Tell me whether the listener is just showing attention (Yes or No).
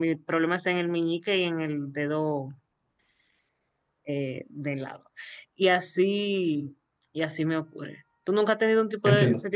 Yes